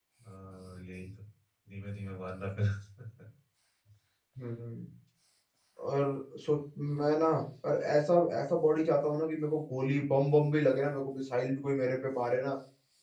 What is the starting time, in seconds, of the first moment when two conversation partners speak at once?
none

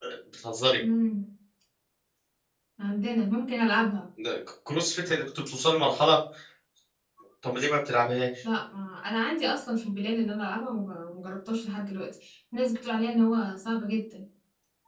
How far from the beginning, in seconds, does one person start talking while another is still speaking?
none

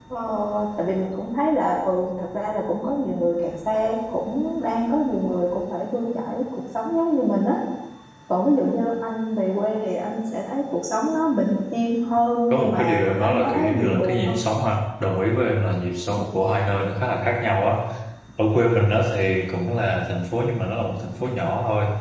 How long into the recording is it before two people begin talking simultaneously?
13 s

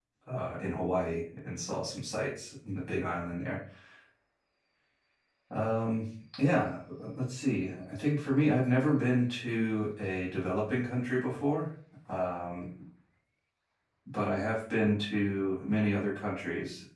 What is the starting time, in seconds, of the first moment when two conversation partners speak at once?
none

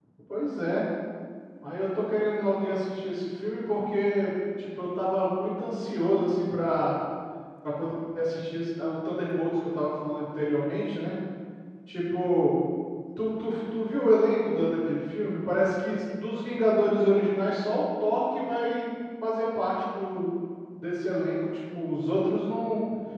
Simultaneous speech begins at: none

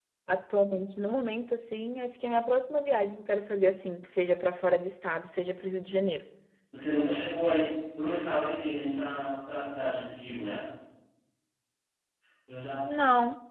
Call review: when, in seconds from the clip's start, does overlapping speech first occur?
none

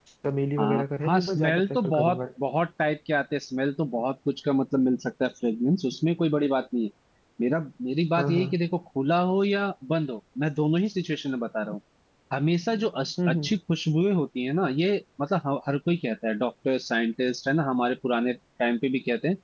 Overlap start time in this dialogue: 1 s

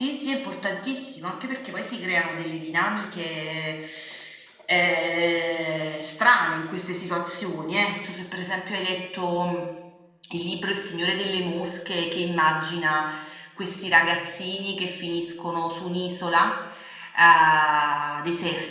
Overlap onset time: none

